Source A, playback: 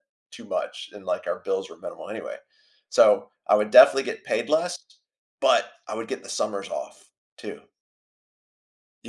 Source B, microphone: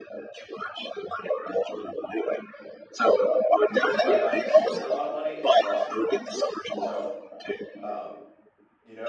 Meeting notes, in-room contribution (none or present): present